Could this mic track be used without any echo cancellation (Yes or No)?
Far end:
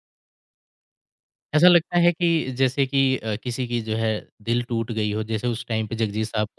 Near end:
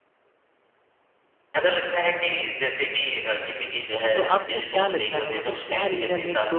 No